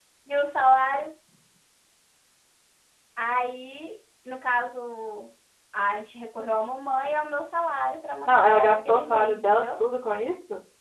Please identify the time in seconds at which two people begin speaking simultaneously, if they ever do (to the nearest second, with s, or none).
8 s